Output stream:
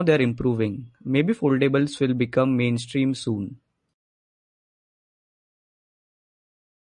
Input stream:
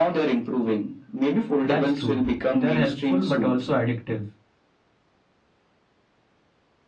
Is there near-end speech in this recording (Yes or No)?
Yes